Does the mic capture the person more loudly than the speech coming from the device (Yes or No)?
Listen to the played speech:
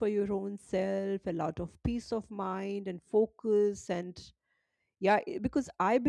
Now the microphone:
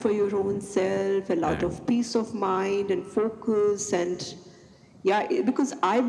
No